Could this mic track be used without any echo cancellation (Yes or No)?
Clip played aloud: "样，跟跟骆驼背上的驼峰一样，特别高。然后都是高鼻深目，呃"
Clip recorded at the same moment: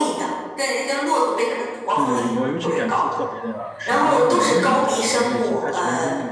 No